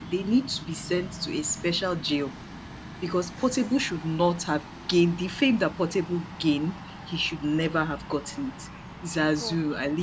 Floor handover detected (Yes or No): No